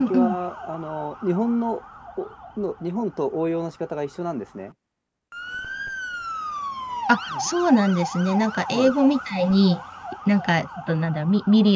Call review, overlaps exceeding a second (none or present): none